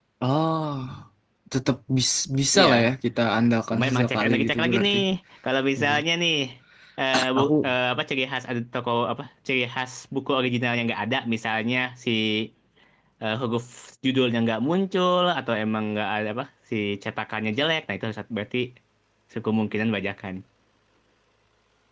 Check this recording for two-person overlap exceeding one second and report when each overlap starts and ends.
3.7-5.0

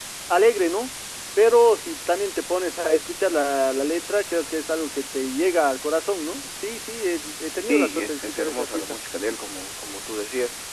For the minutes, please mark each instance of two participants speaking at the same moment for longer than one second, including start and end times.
7.7-9.0

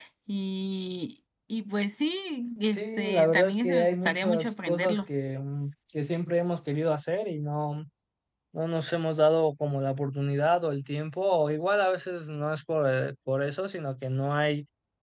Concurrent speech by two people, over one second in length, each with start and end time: 2.7-5.0

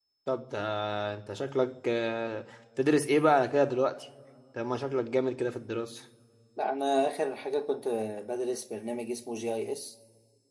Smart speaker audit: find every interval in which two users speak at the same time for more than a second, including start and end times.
none

